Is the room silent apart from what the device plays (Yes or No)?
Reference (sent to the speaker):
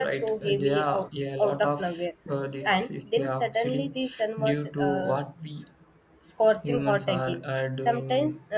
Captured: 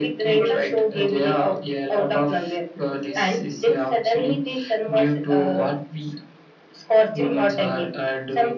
Yes